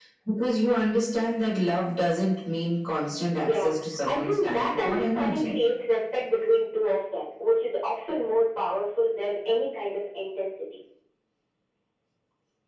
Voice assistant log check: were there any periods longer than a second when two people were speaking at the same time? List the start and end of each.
3.4-5.6

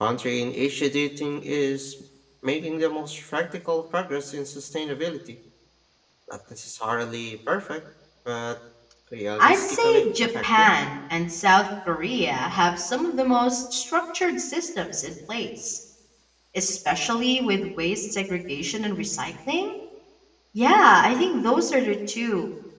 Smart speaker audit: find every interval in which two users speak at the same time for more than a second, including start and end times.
9.4-10.8

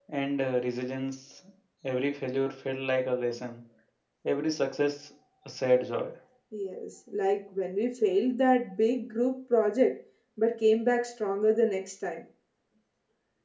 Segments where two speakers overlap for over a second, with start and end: none

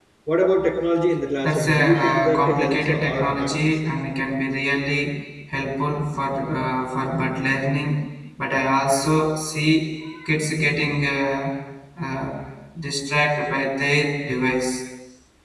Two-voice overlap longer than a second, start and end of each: 1.4-3.6

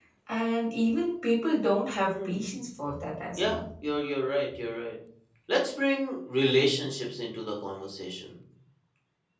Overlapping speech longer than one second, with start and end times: none

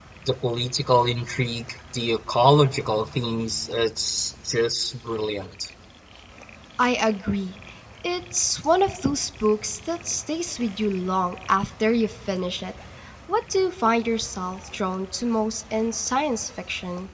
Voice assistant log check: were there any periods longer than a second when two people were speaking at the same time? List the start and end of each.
none

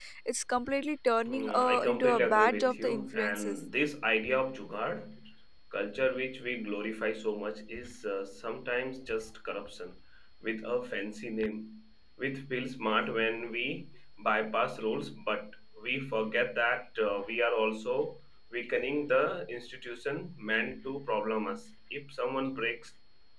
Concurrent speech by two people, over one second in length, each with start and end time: 1.3-3.6

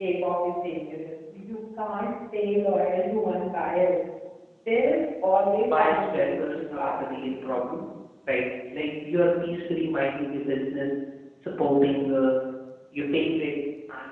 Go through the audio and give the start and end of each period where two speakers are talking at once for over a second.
5.8-7.3

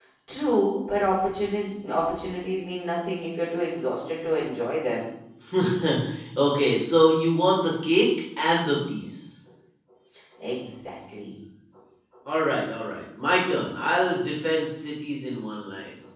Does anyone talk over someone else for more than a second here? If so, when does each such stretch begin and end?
none

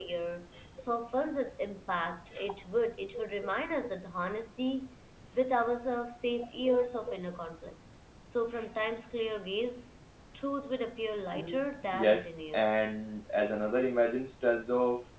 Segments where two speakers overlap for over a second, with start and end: 11.4-12.7

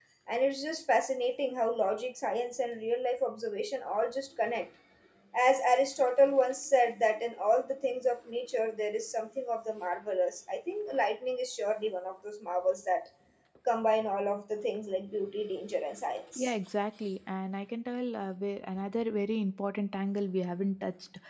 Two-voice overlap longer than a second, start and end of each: none

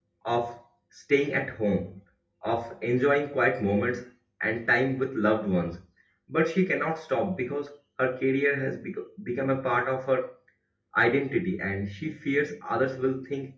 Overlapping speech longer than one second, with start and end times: none

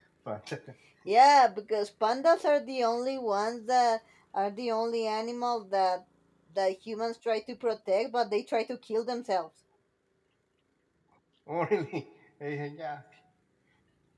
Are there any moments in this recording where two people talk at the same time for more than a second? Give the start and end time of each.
none

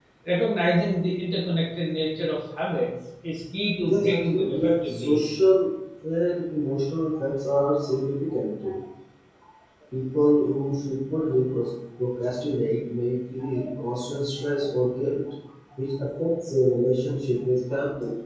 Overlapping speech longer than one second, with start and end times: 3.9-5.2

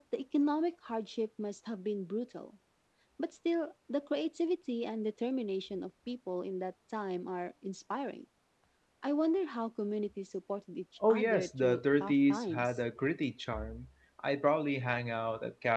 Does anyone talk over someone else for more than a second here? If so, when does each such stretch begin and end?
11.1-12.8

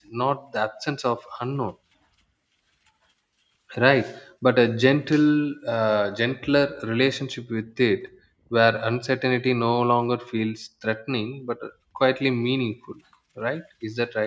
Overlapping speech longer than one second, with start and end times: none

